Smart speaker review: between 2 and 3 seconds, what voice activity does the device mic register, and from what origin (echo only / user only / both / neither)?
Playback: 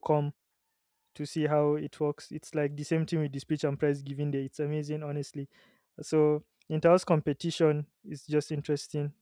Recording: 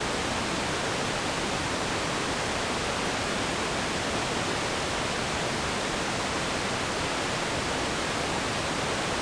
neither